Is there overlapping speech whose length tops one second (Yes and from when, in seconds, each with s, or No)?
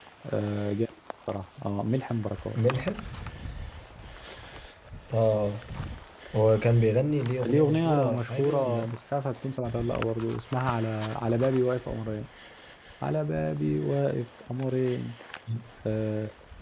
Yes, from 7.4 s